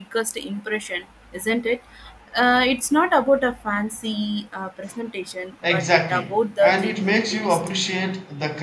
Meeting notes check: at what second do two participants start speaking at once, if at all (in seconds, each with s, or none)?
5.6 s